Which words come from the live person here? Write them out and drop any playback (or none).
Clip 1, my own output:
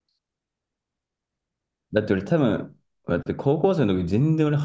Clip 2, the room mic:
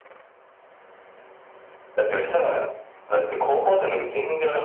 none